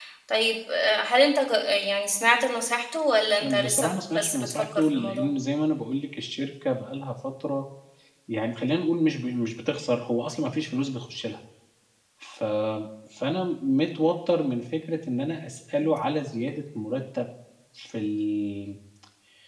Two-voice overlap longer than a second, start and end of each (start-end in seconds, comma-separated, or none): 3.4-5.3